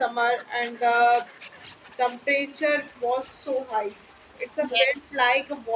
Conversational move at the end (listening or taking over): listening